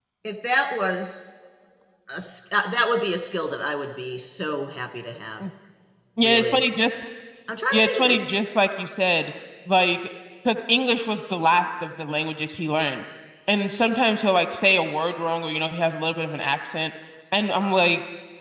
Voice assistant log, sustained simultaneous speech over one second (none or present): none